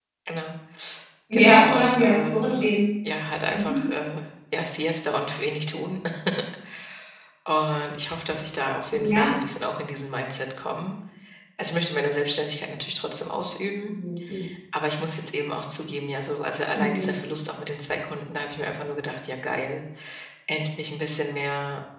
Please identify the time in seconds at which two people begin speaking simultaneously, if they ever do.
1.3 s

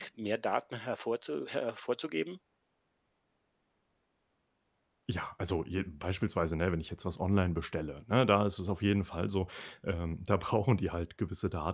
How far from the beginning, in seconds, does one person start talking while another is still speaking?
none

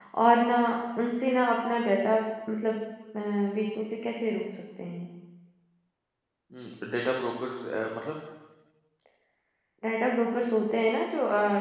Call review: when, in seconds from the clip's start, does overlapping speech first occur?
none

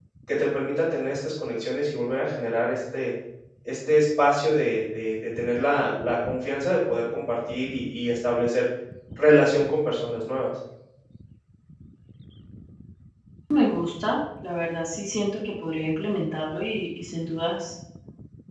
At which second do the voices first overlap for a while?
none

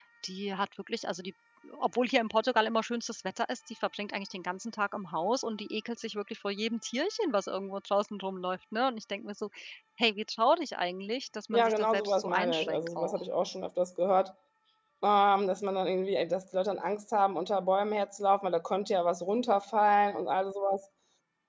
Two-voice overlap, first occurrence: 11.5 s

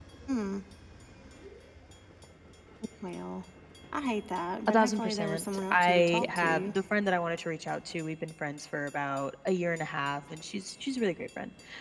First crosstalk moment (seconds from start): 4.7 s

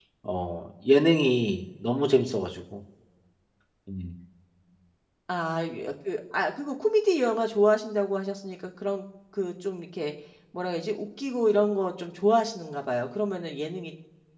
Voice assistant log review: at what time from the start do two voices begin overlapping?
none

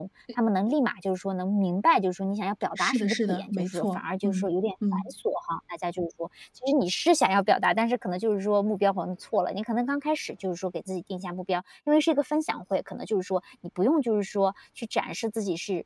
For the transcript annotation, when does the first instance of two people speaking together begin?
2.8 s

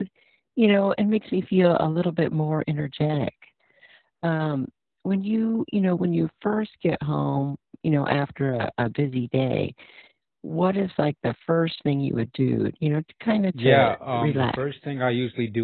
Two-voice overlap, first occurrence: 13.5 s

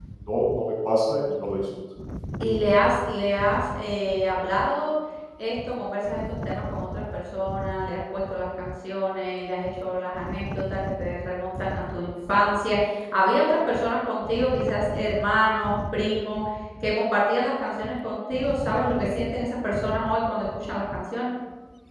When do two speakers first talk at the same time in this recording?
none

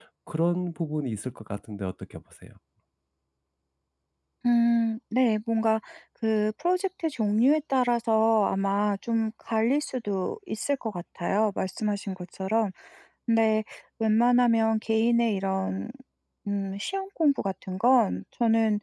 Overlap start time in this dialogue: none

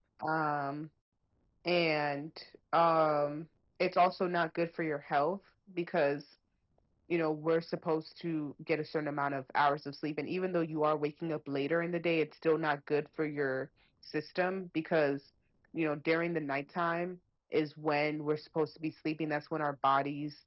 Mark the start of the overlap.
none

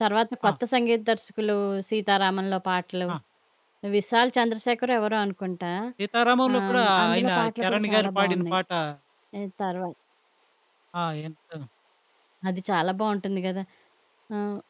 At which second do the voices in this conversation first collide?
6.5 s

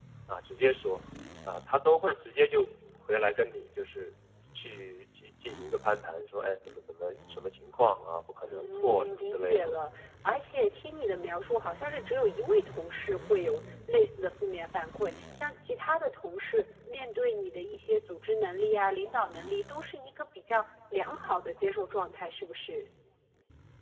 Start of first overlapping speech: 8.4 s

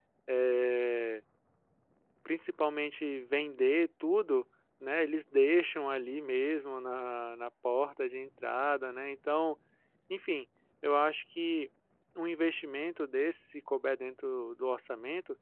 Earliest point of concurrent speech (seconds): none

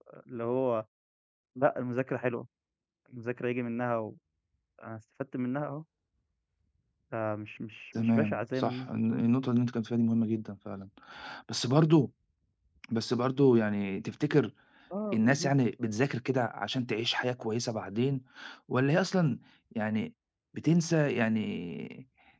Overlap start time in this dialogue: 8.0 s

